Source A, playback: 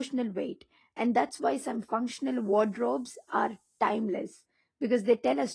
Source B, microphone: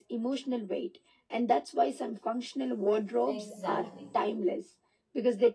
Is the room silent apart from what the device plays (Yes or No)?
No